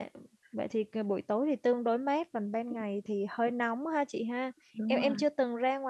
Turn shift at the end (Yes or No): No